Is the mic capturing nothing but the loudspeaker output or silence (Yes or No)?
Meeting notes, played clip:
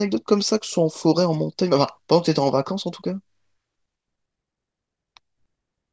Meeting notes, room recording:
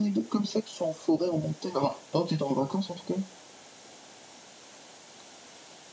Yes